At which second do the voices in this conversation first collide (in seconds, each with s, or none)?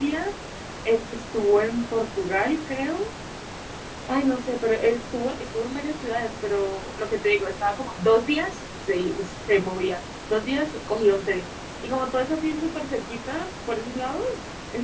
none